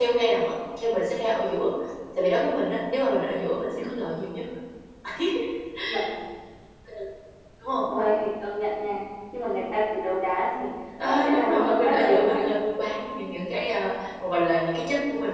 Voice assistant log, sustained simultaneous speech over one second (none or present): present